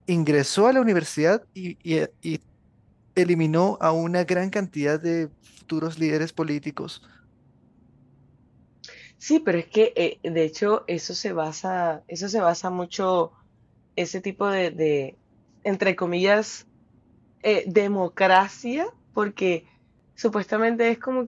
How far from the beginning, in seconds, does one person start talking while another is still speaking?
none

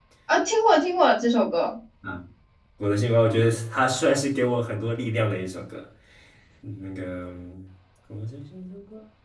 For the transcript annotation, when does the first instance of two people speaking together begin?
none

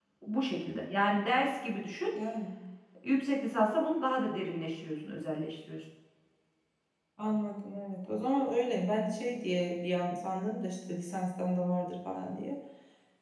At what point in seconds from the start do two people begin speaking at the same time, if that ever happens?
none

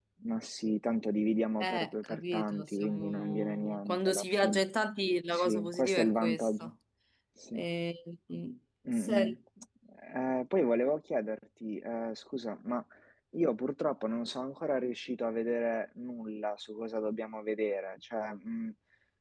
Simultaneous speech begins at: 1.6 s

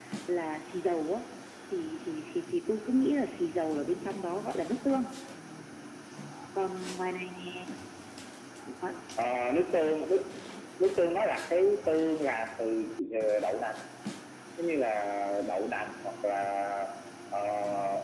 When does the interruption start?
none

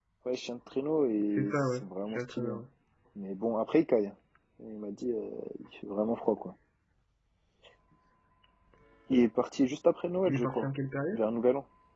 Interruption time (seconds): 1.3 s

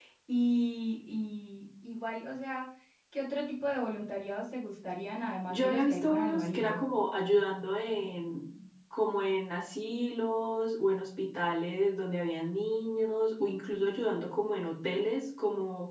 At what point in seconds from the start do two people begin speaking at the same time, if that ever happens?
5.5 s

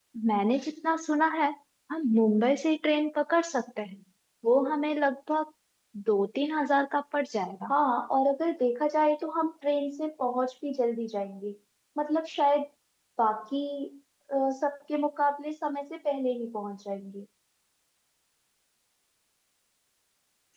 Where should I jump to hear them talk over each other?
none

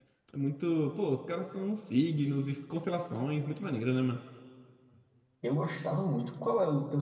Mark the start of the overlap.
none

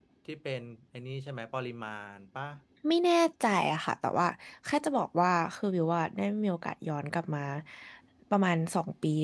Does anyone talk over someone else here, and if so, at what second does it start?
none

